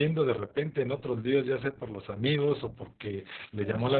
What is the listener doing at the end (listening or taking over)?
listening